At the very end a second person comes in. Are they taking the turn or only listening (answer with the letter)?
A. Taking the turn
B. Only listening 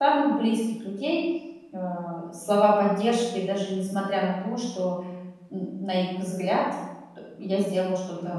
A